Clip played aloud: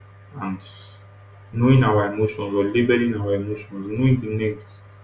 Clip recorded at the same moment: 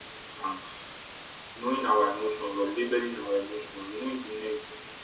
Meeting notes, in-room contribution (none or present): none